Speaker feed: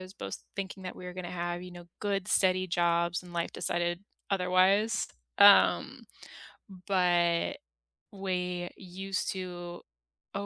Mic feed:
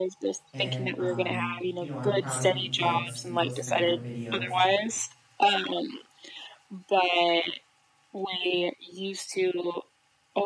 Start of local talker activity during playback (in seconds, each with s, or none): 0.5 s